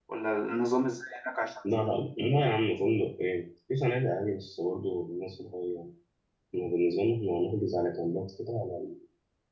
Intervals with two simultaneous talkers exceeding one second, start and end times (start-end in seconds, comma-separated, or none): none